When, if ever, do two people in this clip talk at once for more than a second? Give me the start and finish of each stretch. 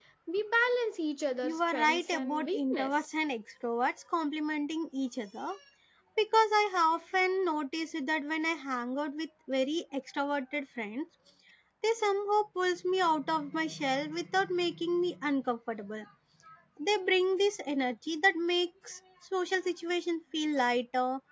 1.4-3.1

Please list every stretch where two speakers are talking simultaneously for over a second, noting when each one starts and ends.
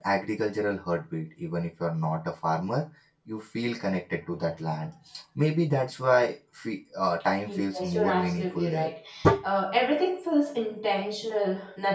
7.4-8.9

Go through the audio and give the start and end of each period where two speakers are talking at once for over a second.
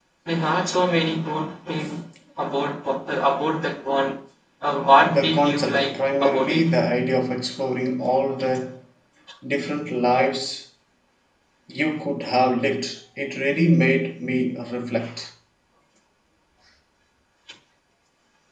5.0-6.6

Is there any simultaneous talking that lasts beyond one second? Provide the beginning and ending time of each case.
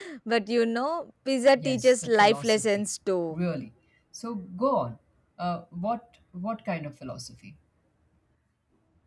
1.6-2.9

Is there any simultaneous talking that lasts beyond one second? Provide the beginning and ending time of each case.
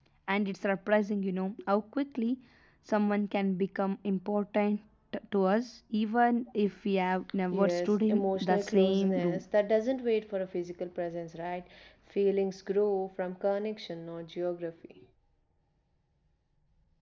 7.5-9.4

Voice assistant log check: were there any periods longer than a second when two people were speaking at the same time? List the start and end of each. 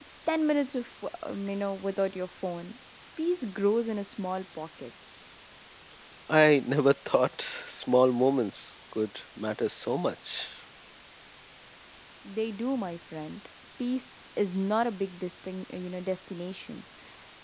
none

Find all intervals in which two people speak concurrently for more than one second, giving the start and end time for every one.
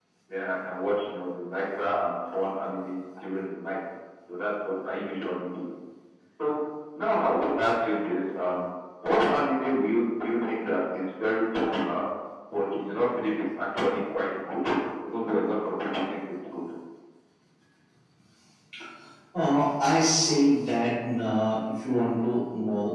none

